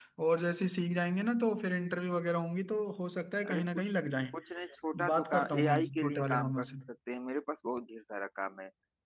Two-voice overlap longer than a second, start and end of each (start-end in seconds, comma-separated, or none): 5.0-6.7